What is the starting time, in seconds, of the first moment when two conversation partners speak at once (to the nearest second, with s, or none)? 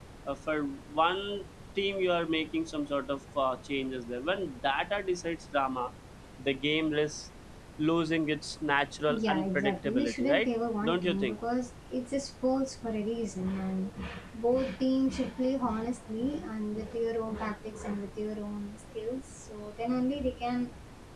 9 s